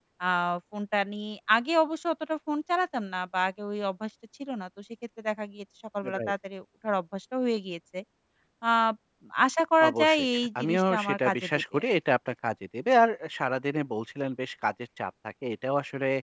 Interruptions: present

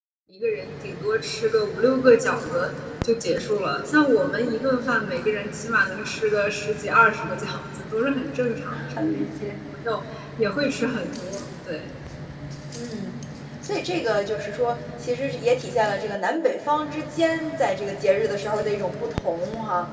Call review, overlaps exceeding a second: none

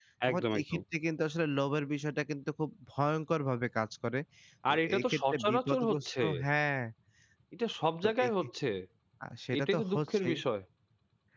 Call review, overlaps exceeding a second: present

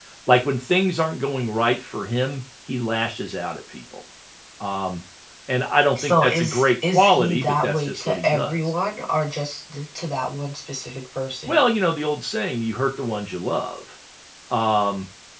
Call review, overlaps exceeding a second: present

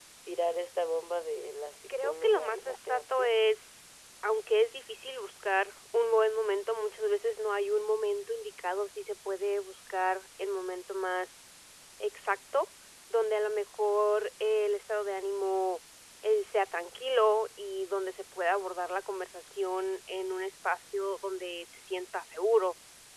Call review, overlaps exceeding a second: present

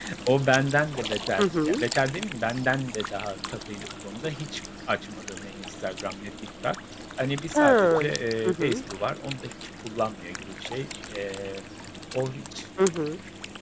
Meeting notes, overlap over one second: none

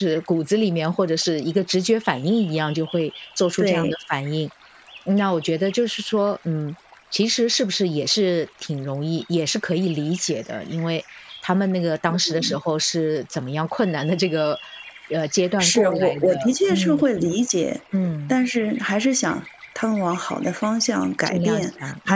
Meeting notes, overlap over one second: present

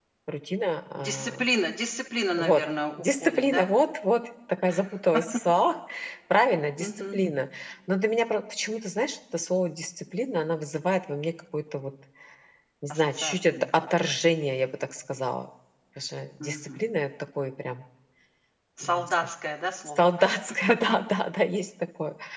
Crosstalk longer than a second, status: present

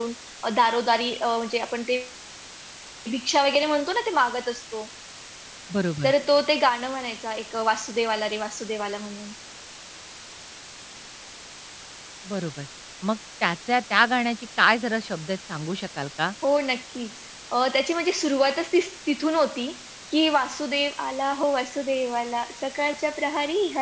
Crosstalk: none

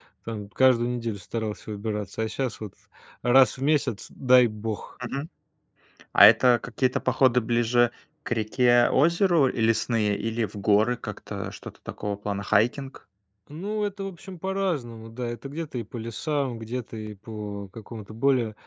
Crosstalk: none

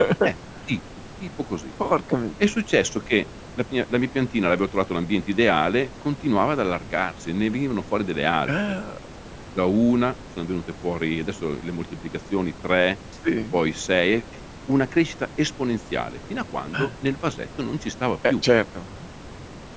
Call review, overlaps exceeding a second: none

